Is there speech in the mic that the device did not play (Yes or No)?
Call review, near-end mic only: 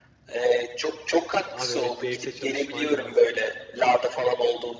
Yes